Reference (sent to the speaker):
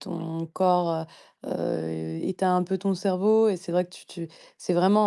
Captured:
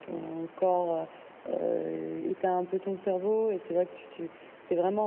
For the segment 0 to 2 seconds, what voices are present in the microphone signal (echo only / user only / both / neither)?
echo only